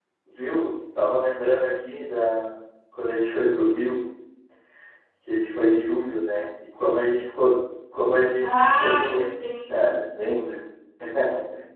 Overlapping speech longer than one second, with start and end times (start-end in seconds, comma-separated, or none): 8.4-9.9